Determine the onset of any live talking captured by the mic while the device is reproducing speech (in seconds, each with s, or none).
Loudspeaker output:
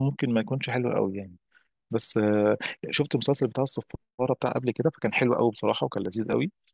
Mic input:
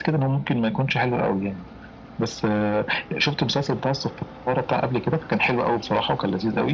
none